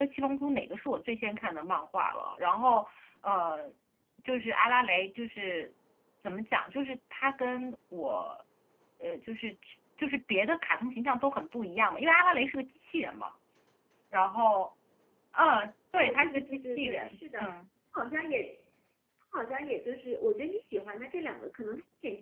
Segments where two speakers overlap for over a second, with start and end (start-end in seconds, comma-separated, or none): 15.9-17.5